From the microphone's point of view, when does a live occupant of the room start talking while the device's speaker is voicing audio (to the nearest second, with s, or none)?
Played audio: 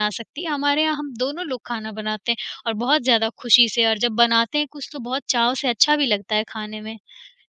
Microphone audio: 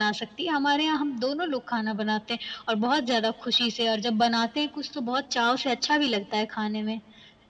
none